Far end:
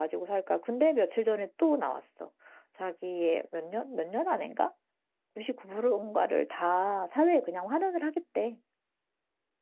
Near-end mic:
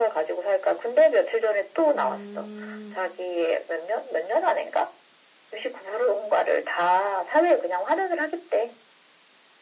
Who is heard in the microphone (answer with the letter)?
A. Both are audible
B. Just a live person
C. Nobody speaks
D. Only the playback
A